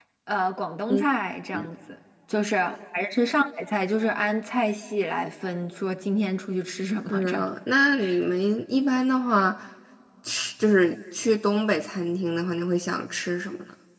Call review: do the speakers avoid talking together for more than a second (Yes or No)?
Yes